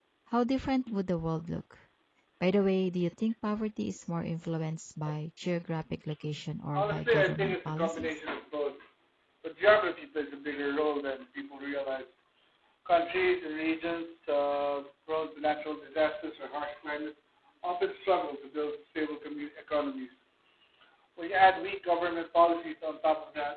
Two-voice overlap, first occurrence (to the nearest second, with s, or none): 7 s